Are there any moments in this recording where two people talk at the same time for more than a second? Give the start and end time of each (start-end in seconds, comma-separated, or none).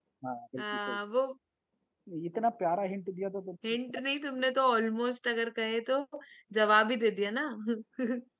none